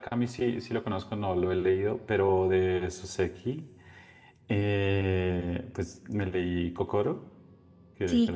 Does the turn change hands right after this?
Yes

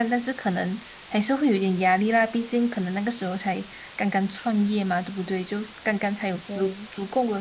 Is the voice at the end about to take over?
No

